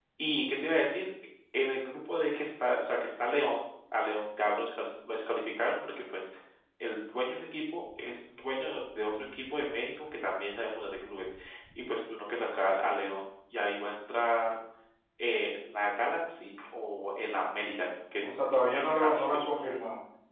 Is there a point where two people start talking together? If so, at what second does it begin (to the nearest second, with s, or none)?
18 s